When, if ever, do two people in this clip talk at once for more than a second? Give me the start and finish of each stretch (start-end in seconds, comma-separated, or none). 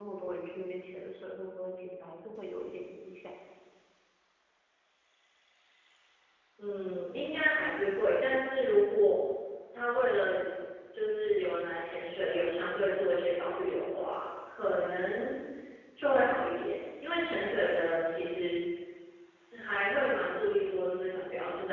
none